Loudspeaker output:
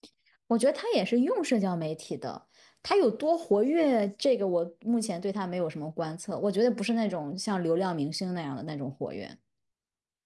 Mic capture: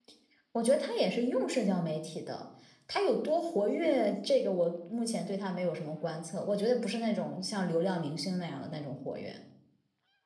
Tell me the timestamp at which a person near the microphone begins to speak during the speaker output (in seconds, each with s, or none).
none